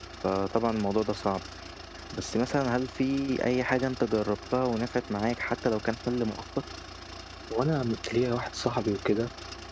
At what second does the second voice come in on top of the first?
none

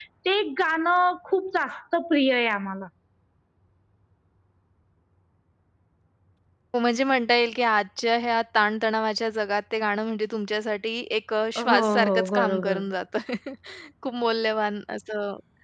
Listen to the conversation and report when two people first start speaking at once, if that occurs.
12 s

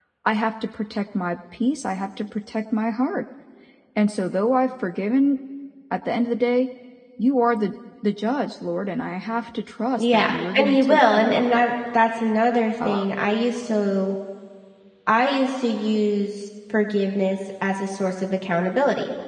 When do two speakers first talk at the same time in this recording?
10 s

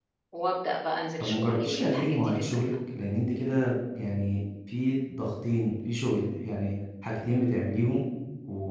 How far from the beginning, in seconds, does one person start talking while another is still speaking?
1 s

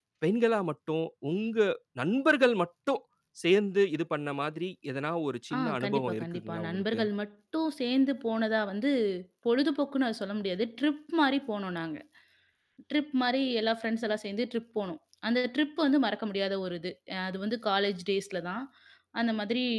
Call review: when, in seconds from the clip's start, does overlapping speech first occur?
6 s

